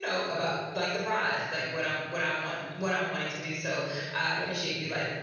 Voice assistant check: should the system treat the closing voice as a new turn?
No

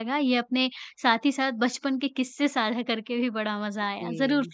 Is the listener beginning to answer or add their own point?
No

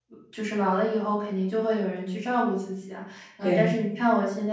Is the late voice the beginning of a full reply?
No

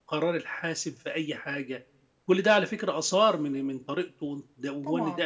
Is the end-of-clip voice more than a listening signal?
Yes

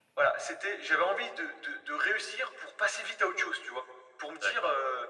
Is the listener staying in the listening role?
Yes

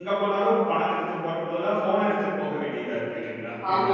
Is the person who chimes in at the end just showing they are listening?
No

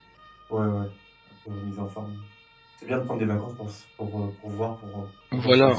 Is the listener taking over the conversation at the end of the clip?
Yes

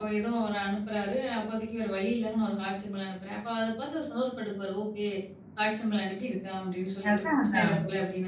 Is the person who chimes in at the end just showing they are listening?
Yes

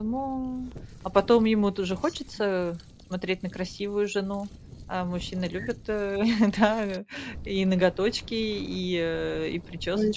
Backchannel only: No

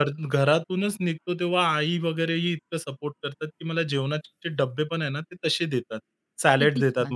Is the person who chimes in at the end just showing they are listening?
Yes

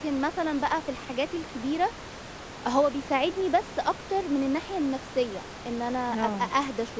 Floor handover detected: No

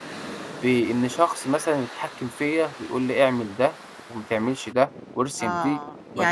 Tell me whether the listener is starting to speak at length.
Yes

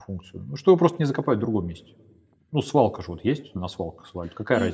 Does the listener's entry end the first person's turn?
Yes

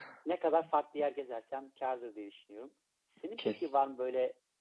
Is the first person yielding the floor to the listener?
No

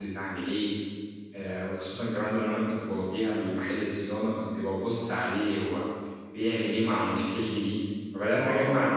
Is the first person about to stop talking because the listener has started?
Yes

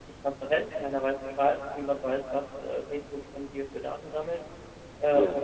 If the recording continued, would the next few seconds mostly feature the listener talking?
No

